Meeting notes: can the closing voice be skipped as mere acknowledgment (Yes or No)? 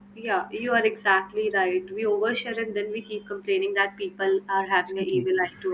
Yes